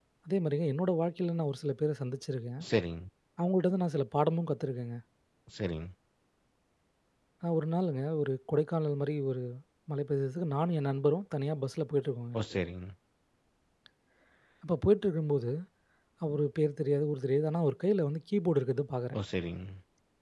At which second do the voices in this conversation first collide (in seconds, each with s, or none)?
none